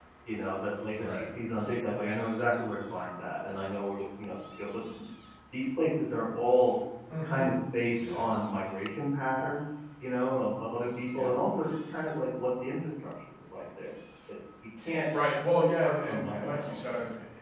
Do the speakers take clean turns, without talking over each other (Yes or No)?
No